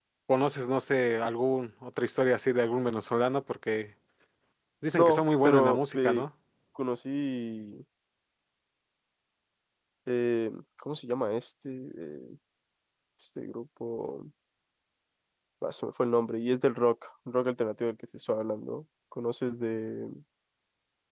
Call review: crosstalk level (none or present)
present